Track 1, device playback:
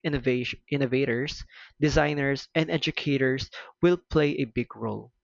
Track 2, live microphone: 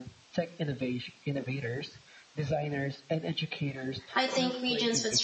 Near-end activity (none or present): present